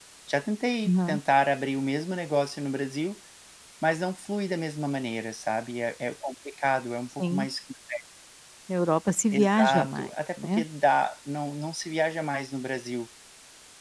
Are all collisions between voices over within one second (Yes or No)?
No